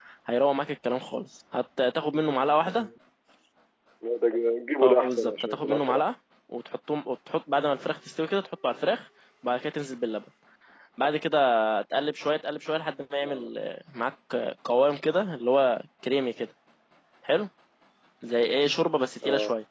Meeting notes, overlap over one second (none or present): present